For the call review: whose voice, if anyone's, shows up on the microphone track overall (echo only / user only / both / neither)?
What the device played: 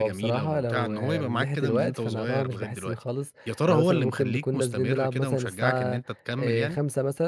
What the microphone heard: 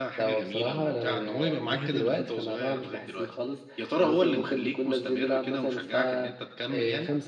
echo only